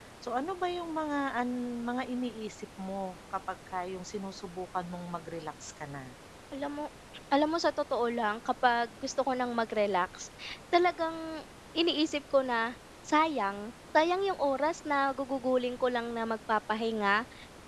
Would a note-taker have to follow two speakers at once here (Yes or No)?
No